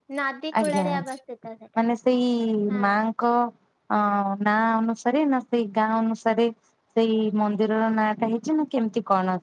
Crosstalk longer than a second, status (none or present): none